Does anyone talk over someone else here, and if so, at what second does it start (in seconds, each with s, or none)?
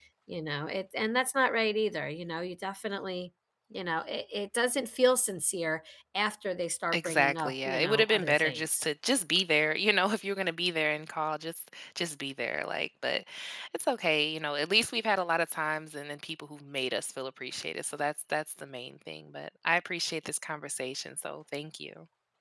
6.9 s